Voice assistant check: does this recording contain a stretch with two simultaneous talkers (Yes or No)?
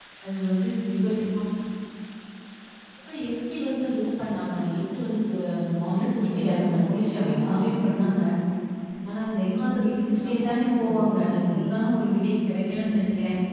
Yes